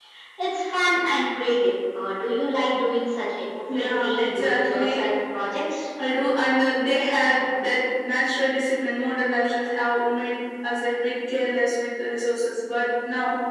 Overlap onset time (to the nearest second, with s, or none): 4 s